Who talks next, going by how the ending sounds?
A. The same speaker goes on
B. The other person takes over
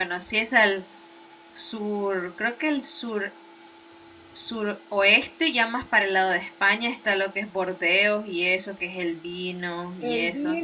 B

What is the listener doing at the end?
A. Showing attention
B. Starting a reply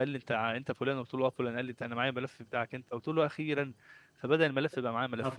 A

